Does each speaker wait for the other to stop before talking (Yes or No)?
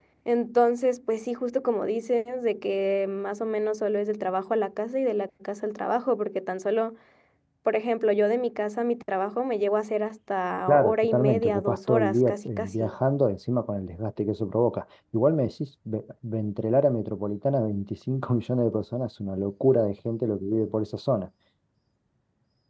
No